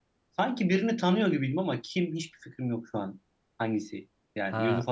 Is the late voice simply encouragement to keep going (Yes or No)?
No